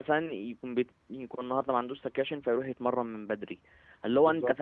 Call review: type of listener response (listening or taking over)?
listening